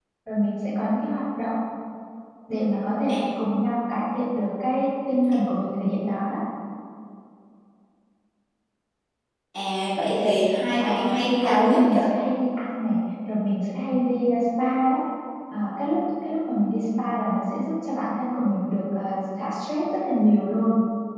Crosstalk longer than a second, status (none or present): present